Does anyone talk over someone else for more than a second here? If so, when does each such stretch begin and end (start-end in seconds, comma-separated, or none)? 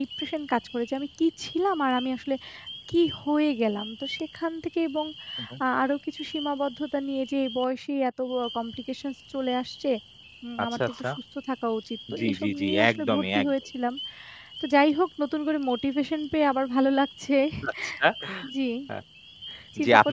12.2-13.5